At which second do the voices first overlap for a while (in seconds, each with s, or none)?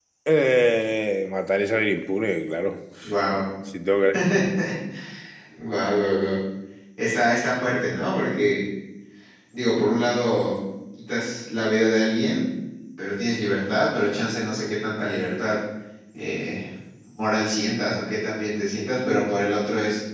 none